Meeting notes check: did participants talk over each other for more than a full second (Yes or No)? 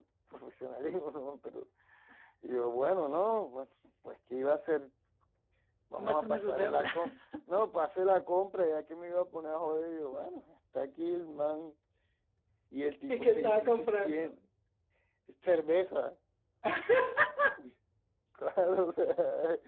Yes